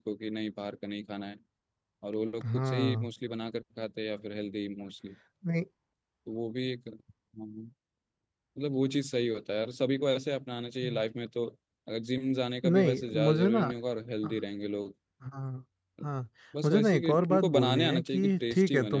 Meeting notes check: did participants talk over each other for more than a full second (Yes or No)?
Yes